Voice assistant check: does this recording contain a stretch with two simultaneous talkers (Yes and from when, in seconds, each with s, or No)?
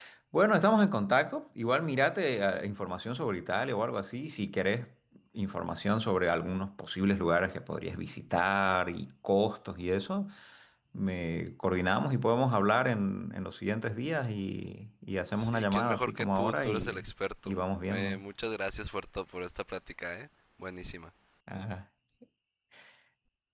Yes, from 15.3 s